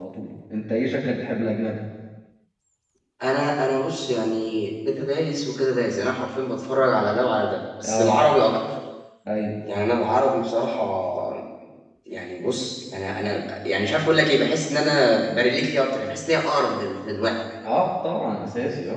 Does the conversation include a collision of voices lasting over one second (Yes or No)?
No